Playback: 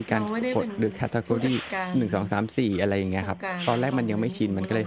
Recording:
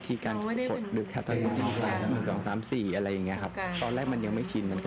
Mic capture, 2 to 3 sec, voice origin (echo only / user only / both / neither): both